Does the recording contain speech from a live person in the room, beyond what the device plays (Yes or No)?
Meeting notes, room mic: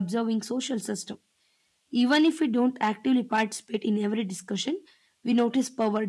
Yes